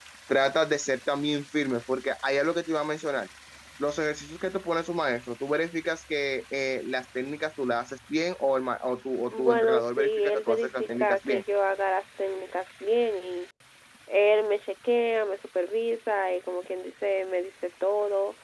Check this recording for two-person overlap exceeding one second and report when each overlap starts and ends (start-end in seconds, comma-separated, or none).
9.3-11.4